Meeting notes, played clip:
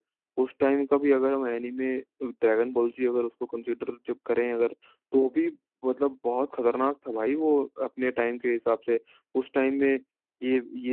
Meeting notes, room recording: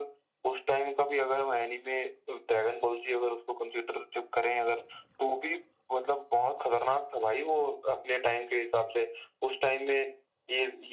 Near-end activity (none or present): none